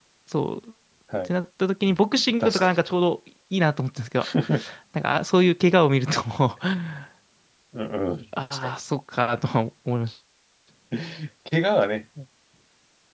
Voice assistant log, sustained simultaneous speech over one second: none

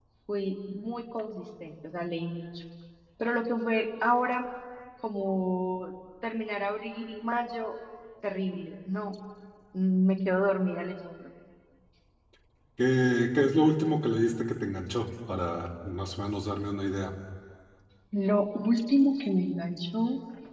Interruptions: none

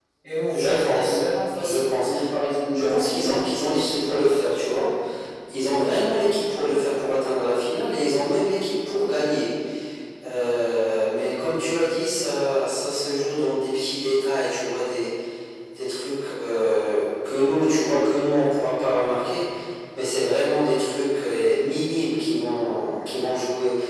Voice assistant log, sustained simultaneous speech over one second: present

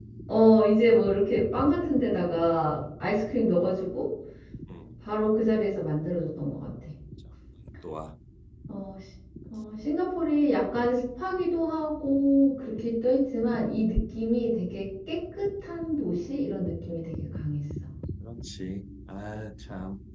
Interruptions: none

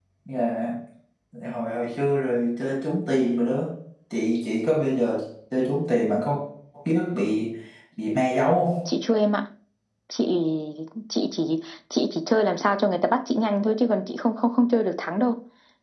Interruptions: none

